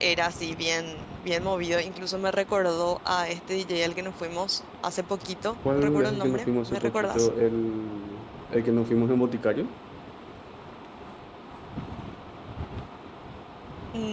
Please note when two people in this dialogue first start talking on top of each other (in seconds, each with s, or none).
5.7 s